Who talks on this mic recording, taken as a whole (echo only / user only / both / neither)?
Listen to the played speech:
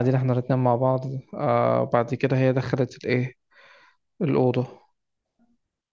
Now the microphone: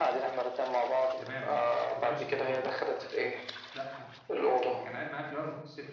both